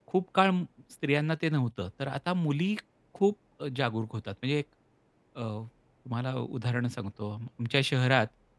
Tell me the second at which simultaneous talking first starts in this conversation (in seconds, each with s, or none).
none